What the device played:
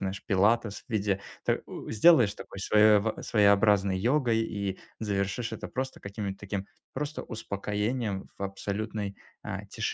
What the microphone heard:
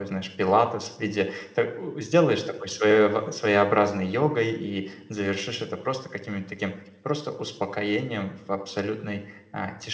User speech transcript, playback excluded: none

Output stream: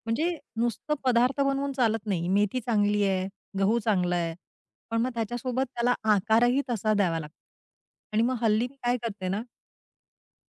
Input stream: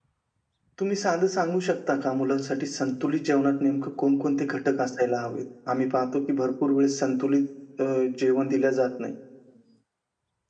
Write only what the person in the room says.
तुम्ही साधं सांगू शकता का मुलांसाठी संतुलित जेवणात नेमकं कोणकोणते घटक असायला हवेत? आम्ही पाहतो की भरपूर वेळेस संतुलित अ, जेवण दिलं जात नाही

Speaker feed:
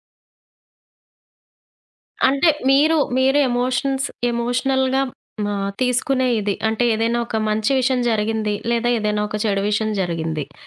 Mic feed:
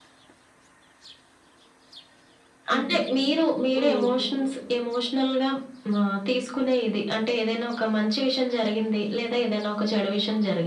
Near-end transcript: హుహు. హ్మ్. హ్మ్.

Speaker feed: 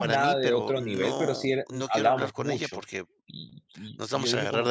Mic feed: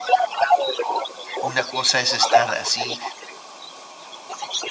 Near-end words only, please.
Una cosa es estar así.

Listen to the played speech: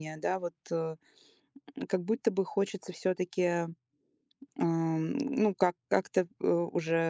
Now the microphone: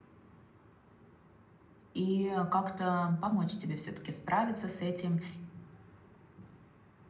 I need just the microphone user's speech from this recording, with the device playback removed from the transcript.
и э, как-то помочь тебе все-таки справиться с этим

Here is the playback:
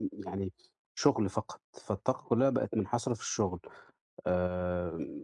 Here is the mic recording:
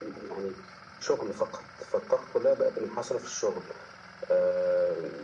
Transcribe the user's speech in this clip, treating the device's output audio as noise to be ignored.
none

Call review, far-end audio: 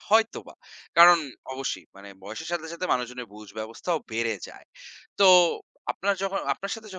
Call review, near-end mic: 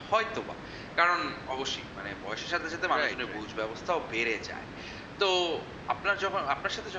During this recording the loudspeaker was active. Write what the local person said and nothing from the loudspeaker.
রাইট রাইট

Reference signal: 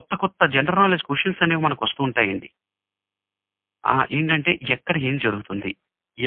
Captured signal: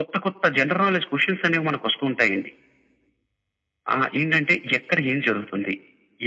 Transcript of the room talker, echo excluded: none

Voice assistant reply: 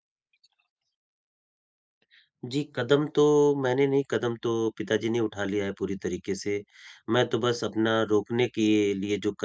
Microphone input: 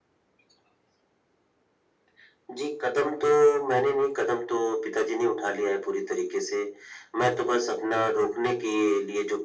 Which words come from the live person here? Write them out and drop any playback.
none

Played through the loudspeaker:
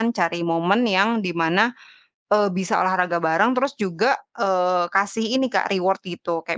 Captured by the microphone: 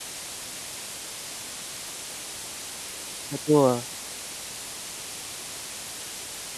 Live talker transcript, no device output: Betul,

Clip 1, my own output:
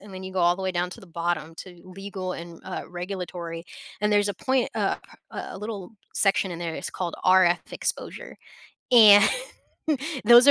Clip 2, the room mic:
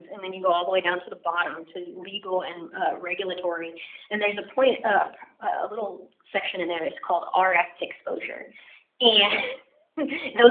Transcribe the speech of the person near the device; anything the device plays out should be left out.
none

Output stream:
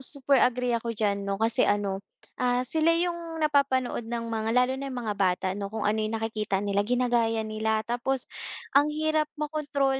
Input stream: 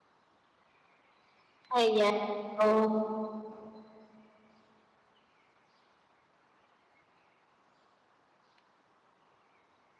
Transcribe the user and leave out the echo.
Ayan, oh,

